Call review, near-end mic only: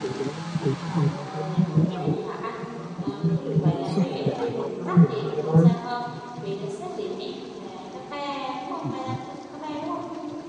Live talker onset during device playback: 1.0 s

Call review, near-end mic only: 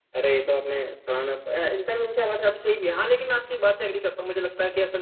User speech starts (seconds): none

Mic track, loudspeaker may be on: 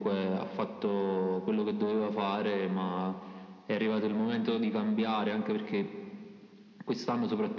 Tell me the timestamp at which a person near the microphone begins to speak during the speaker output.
none

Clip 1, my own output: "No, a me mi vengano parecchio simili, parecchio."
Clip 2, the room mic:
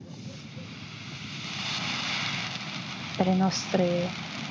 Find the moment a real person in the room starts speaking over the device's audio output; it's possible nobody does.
3.1 s

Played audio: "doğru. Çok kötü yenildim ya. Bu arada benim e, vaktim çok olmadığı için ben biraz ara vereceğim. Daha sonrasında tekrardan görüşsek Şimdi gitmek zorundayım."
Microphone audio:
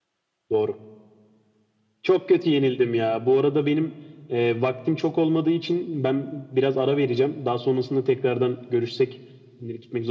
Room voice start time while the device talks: none

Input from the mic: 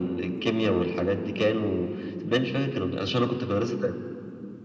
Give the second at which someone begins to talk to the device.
none

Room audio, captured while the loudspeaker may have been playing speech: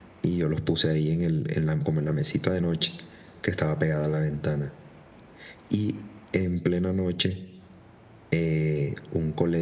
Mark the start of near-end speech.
none

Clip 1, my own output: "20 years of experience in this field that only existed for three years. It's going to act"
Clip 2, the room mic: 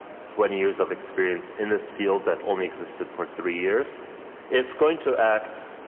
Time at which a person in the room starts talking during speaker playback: none

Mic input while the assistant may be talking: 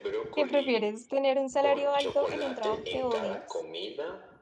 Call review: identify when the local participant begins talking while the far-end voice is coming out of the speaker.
0.3 s

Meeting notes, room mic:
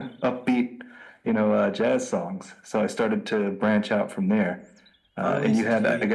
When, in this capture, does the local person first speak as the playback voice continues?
5.2 s

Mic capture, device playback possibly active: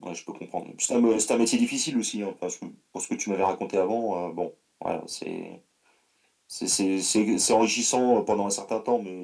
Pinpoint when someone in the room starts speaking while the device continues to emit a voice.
none

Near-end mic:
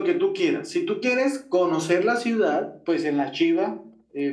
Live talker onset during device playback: none

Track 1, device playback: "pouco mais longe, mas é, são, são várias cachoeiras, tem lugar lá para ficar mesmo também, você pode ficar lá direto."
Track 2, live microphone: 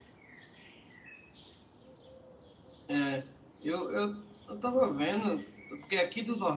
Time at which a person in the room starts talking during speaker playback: 2.9 s

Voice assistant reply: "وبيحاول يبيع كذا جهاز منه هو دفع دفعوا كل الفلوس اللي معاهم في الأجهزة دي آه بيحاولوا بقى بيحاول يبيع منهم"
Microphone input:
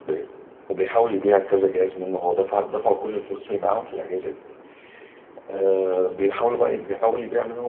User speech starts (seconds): none

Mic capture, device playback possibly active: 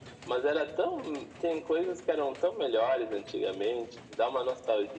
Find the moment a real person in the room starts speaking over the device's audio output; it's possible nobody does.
none

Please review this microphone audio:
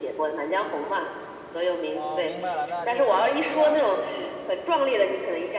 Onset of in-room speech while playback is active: 1.9 s

